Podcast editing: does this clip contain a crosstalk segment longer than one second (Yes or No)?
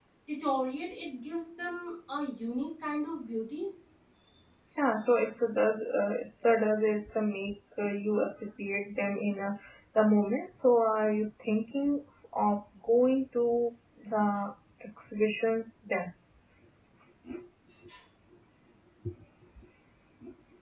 No